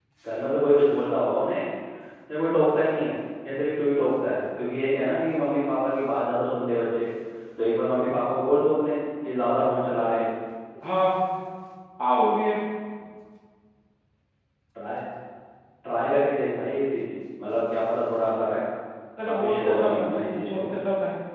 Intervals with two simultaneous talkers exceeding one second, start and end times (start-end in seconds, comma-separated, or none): 19.2-20.7